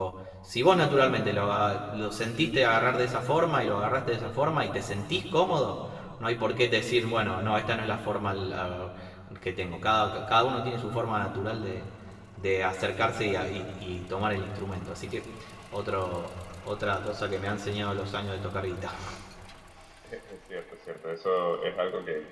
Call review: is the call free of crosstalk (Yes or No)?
Yes